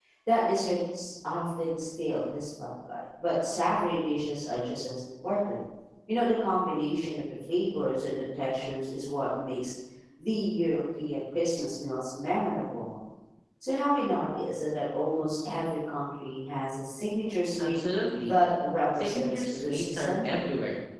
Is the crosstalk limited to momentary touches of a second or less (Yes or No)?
No